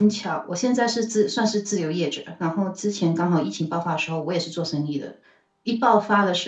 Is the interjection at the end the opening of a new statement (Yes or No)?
No